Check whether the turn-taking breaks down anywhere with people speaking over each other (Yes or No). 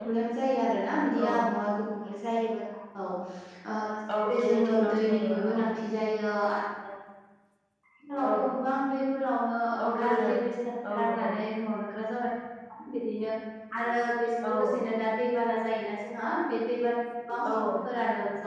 Yes